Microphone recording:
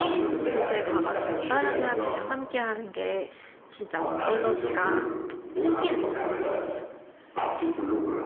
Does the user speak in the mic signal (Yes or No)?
Yes